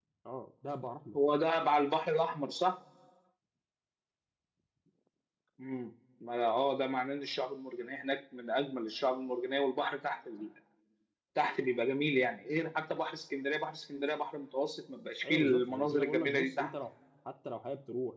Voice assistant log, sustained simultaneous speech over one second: present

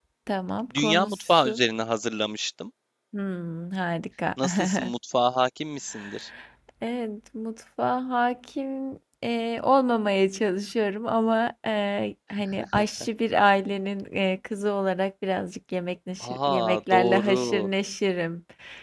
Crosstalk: present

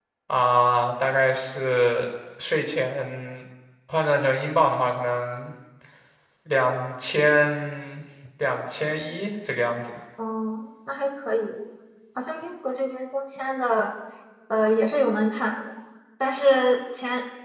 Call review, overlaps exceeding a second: none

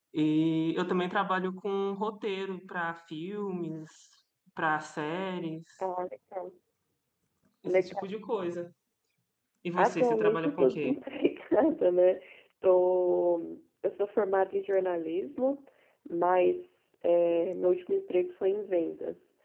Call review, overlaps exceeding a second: present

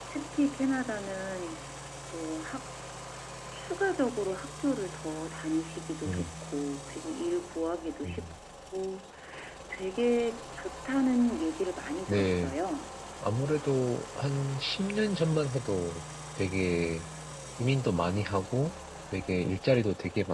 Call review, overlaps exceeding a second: none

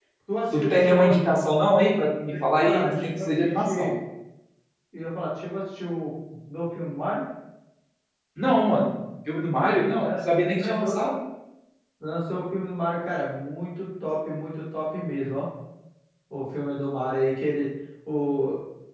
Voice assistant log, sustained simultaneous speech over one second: present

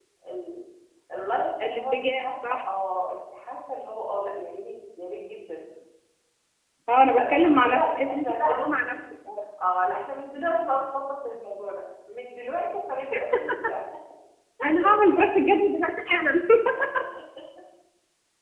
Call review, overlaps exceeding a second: present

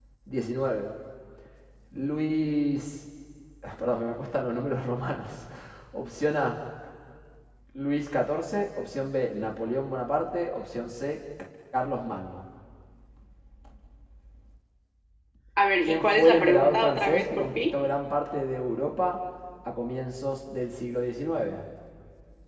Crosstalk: present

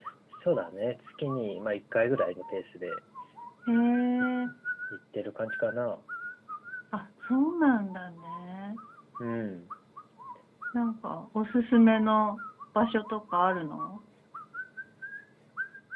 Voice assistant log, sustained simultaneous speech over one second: none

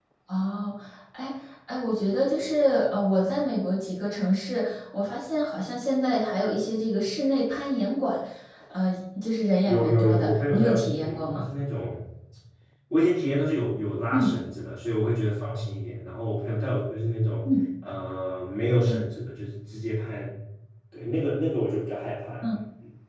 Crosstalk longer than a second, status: present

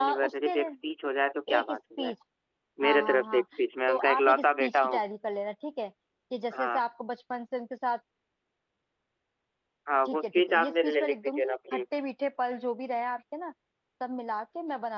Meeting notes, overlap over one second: present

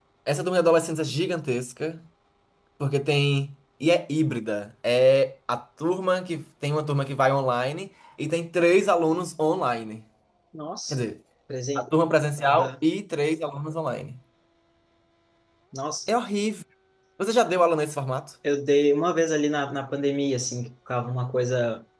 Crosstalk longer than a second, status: none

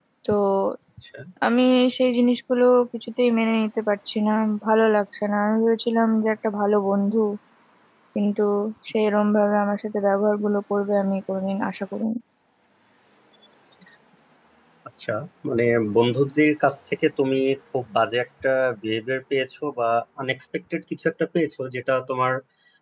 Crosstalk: none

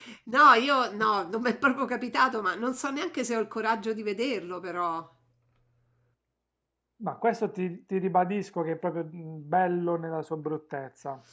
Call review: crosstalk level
none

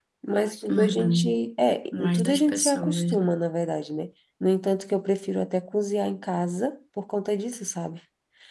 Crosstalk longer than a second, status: present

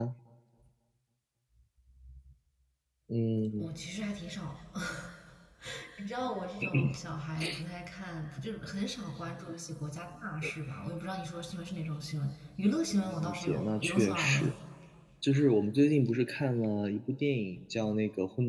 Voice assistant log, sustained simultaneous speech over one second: present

